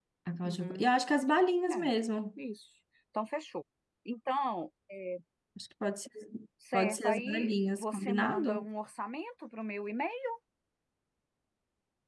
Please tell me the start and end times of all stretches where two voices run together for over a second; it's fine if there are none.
6.7-8.7

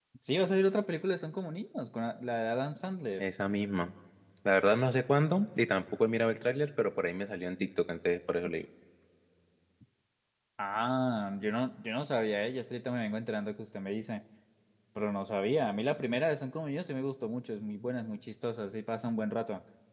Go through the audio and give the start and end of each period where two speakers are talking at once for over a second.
none

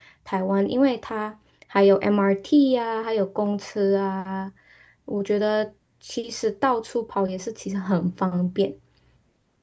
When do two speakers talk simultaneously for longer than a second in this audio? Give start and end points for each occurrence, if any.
none

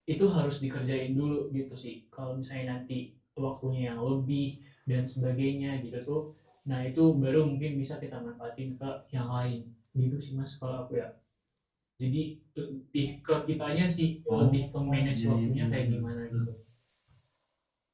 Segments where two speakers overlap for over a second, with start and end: 14.3-15.9

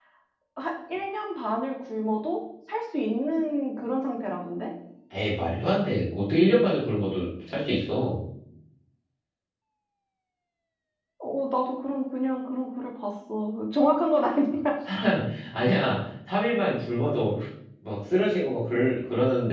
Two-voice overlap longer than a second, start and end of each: none

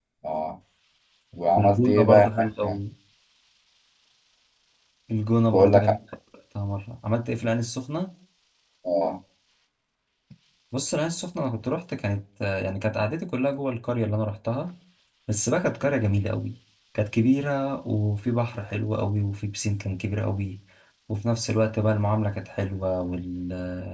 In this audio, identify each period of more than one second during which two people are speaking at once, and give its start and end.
1.6-2.8

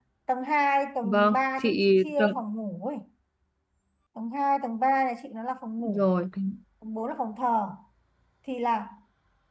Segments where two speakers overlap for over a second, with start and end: 1.0-2.4

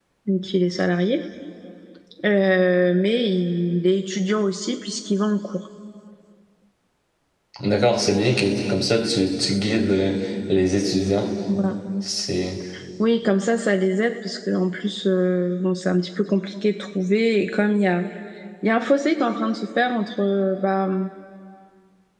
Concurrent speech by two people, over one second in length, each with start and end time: none

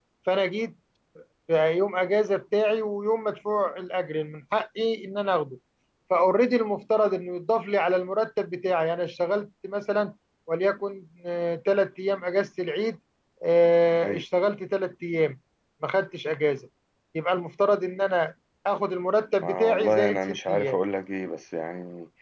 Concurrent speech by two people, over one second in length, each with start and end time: 19.4-20.8

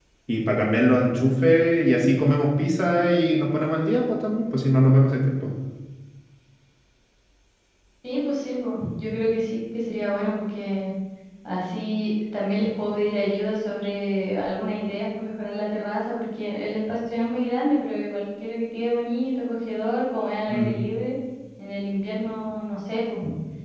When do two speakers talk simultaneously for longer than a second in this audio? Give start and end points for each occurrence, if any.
none

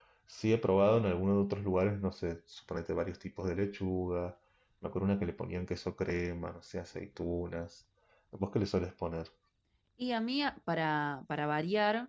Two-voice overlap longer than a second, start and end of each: none

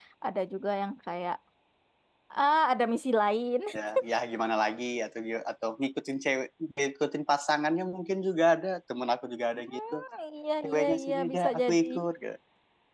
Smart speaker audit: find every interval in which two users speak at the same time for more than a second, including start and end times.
10.6-11.9

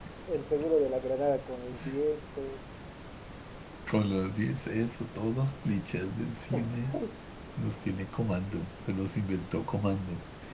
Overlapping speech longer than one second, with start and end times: none

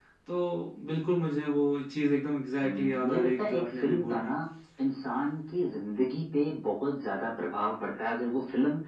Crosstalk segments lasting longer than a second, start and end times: 2.6-4.3

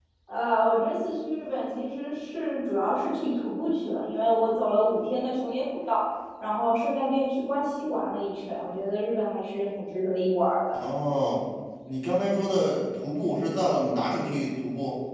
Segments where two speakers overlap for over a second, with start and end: none

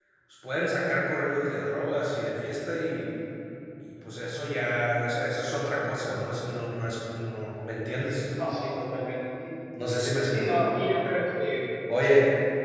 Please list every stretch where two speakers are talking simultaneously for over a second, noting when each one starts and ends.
none

